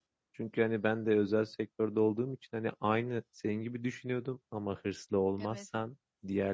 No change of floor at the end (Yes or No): Yes